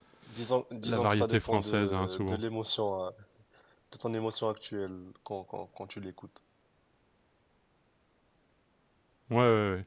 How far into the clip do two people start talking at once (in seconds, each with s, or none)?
0.8 s